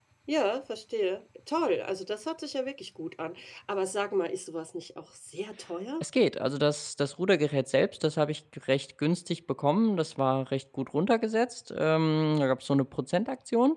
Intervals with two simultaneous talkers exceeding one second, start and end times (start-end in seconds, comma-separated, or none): none